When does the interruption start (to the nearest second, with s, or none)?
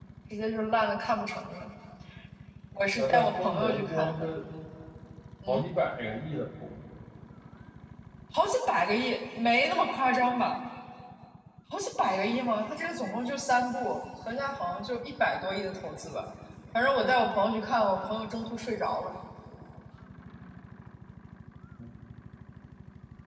3 s